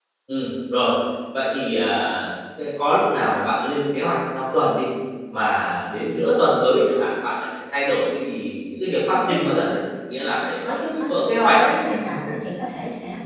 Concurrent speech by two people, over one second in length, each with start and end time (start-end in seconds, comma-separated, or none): 10.4-11.8